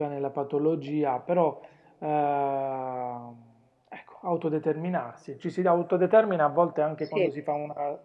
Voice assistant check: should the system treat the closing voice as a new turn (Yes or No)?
No